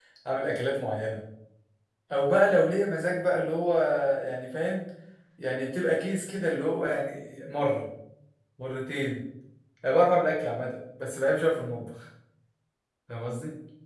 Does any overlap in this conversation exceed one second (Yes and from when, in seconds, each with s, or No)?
No